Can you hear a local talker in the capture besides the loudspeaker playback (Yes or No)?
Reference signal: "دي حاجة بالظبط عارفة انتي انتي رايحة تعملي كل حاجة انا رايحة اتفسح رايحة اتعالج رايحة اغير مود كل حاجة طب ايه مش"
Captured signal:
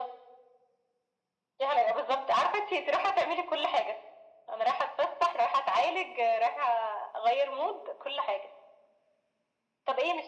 No